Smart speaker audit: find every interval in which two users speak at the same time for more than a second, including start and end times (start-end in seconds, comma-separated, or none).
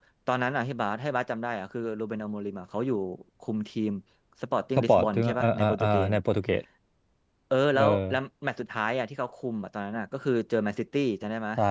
4.8-6.1